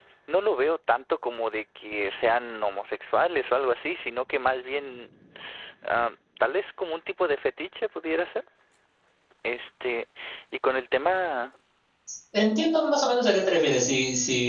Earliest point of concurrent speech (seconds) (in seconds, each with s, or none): none